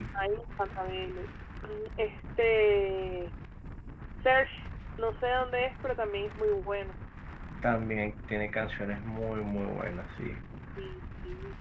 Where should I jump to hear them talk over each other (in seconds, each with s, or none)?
none